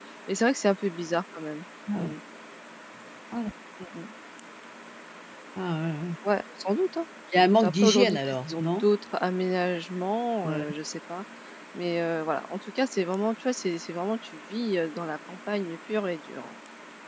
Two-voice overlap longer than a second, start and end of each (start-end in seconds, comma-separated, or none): 7.3-8.8